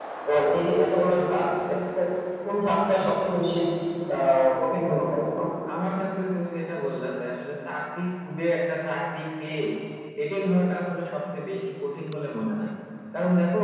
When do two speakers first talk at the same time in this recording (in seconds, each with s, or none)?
none